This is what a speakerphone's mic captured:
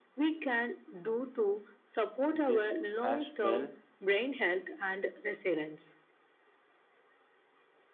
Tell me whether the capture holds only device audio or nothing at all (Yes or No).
No